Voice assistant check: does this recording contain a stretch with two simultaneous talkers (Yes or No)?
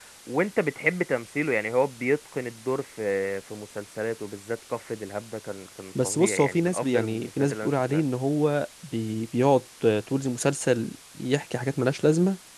Yes